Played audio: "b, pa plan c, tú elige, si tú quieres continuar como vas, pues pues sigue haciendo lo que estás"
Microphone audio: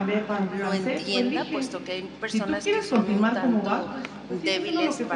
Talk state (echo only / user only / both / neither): both